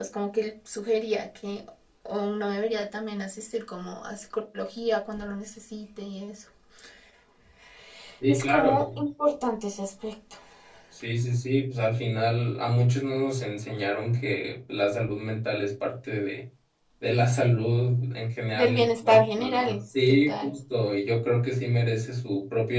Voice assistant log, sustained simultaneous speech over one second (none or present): present